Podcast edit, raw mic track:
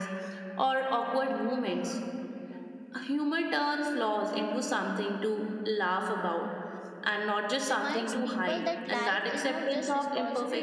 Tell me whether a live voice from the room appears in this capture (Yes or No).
Yes